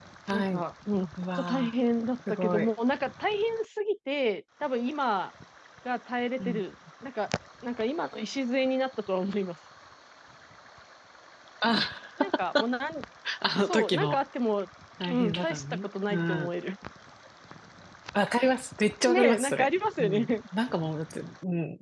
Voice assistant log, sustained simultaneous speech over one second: present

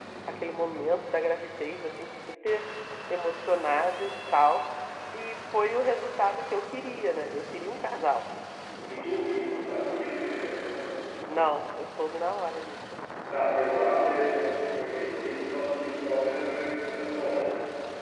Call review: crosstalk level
none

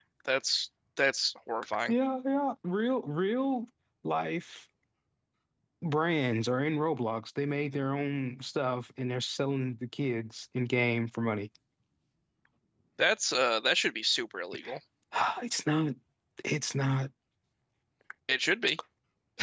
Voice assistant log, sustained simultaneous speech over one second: none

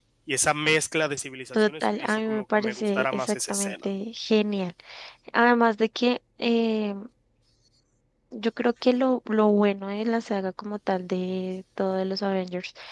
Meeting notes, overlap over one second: present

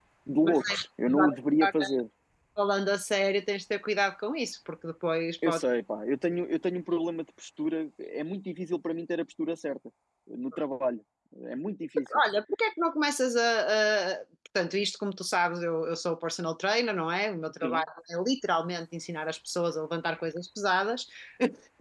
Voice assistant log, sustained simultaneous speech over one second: present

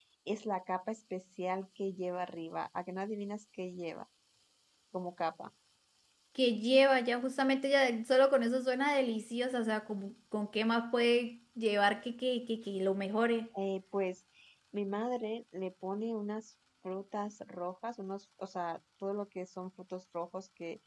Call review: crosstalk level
none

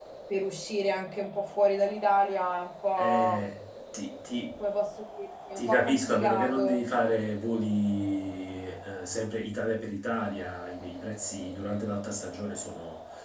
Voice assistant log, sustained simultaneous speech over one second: present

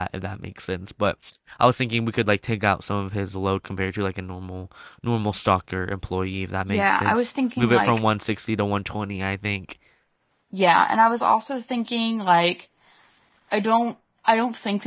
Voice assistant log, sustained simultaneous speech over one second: present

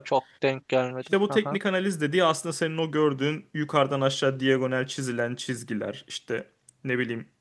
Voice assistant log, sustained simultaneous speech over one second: none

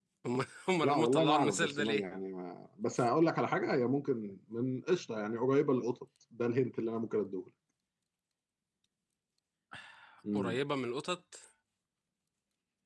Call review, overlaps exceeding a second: present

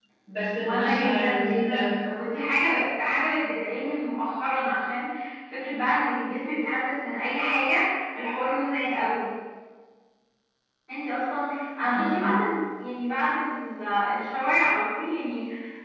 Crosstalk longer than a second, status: present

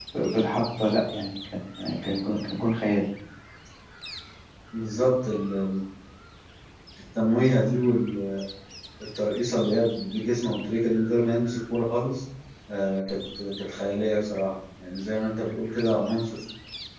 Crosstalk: none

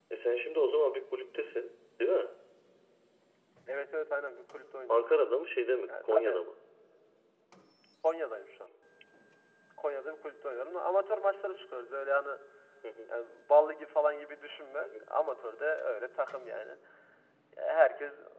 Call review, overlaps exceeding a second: none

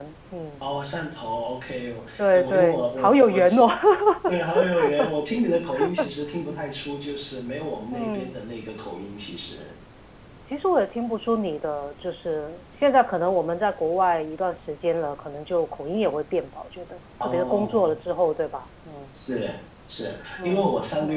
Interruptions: present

